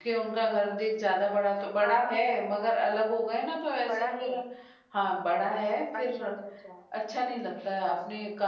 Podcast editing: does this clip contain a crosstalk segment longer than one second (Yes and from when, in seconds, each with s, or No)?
No